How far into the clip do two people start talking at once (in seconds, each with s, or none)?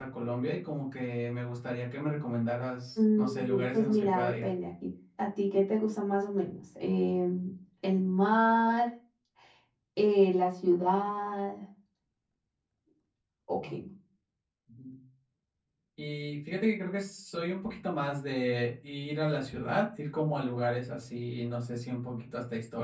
3.0 s